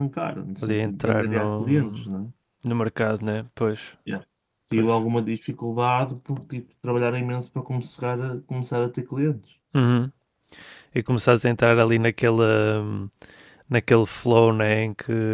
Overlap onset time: 0.6 s

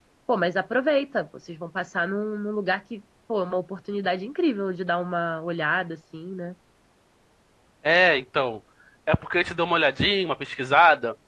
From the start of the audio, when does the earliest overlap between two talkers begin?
none

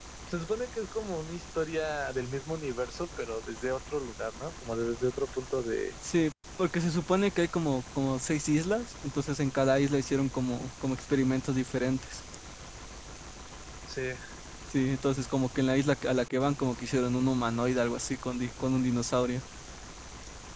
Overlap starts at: none

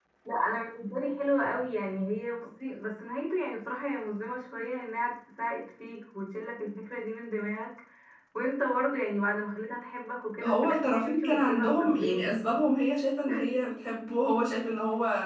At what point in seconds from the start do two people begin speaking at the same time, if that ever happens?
10.4 s

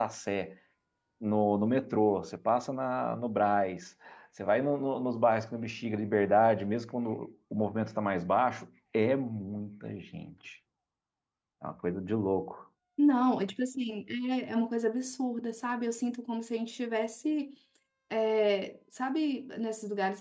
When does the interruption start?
none

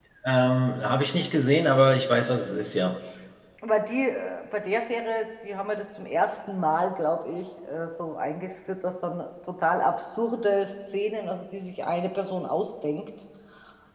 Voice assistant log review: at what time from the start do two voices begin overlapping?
none

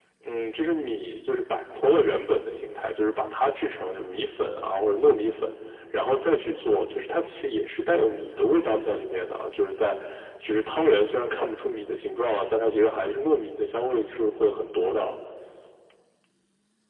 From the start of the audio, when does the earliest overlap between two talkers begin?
none

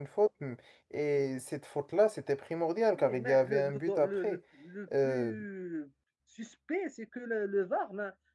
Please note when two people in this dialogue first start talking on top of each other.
3.0 s

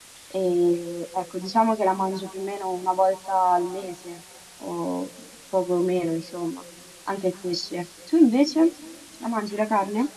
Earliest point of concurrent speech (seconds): none

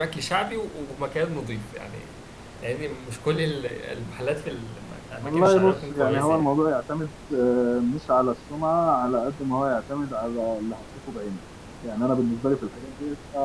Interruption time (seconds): 5.2 s

